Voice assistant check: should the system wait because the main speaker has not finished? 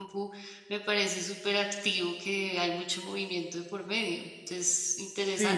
No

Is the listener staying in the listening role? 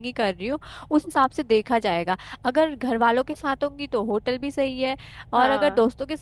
Yes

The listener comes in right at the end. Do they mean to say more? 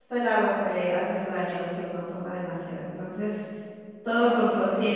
No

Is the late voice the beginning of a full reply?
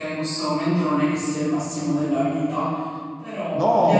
Yes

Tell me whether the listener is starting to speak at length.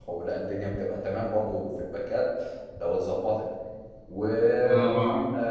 No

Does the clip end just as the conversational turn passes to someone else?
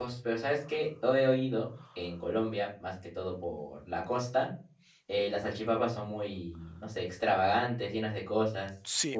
Yes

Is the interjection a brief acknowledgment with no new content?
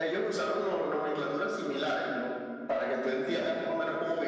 Yes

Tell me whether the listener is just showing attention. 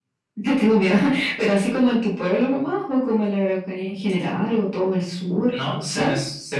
No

